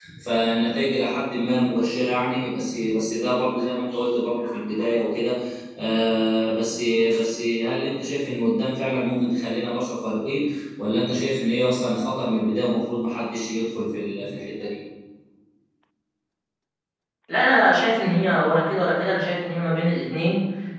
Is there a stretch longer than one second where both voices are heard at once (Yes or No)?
No